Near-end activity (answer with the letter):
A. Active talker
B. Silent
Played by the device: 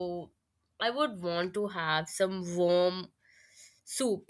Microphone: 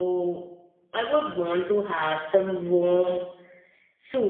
B